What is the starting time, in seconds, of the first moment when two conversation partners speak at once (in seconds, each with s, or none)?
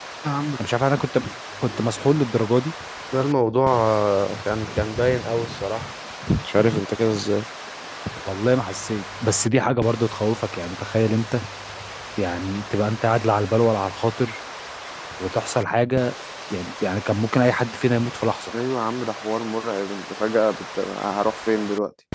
none